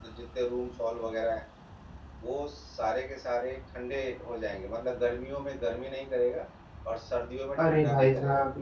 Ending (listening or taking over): taking over